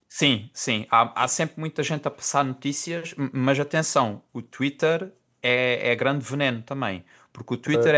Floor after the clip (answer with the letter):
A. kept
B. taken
A